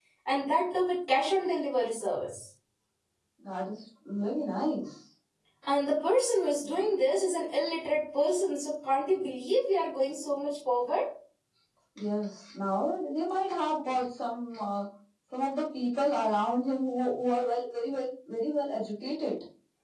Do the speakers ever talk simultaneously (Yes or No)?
No